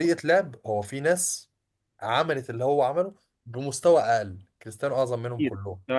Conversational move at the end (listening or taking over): taking over